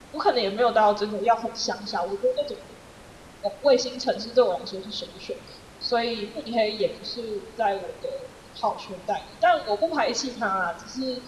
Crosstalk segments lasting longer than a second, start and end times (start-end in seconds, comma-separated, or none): none